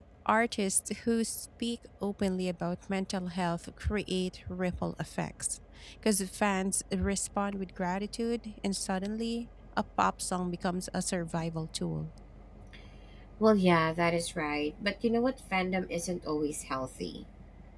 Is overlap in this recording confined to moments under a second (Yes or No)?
Yes